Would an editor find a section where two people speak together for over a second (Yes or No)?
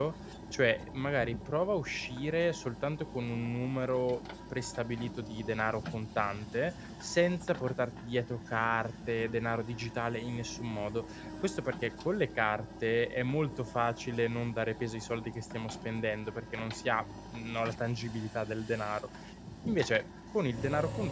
No